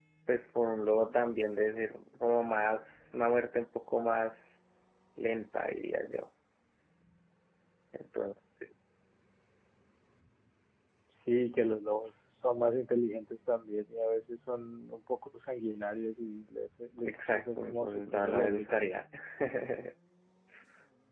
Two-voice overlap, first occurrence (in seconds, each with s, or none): 17.0 s